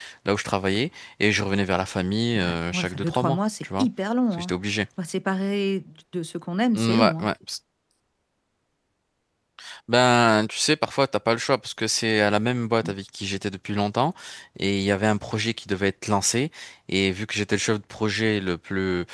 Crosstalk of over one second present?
Yes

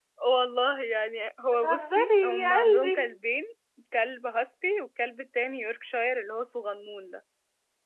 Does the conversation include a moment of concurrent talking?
Yes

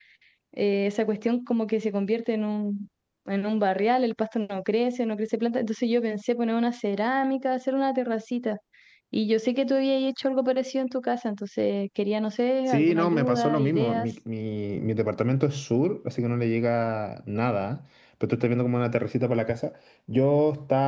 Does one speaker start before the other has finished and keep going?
Yes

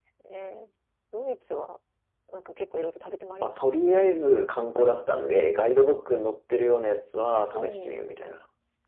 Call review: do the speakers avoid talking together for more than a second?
Yes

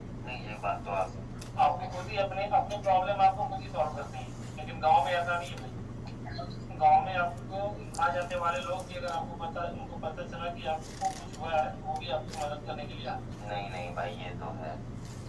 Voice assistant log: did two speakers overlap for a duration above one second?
No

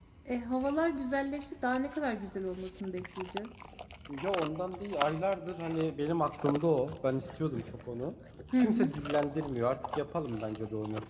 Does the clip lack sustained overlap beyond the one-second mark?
Yes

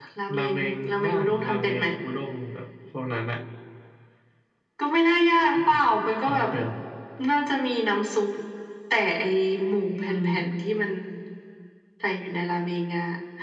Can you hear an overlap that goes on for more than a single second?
Yes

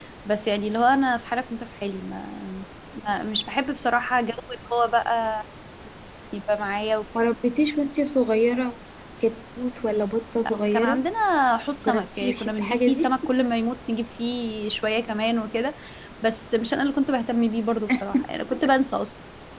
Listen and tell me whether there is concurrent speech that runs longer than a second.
Yes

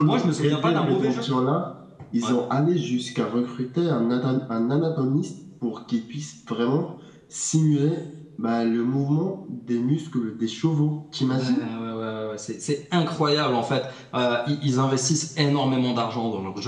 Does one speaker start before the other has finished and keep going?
Yes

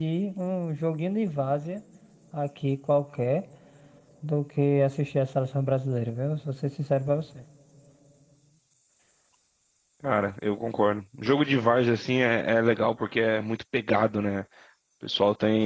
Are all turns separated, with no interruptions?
Yes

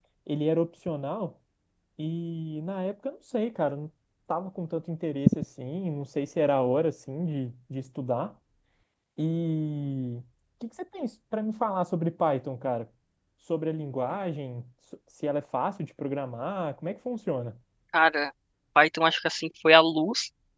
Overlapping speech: No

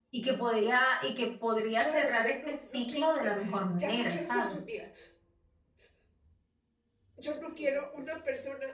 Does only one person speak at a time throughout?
No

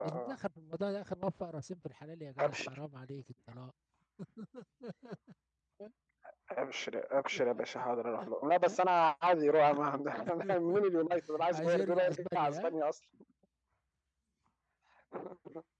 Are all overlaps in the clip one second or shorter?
No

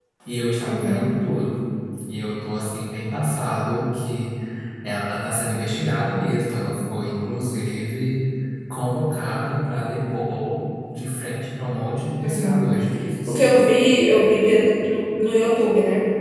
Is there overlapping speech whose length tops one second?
No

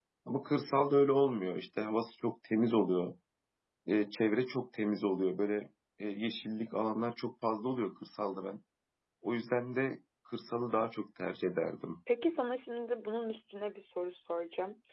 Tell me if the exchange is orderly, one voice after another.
Yes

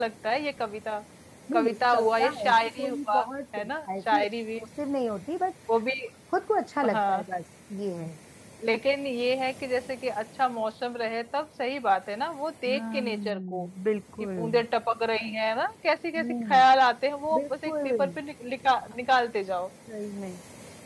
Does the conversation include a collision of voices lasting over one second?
Yes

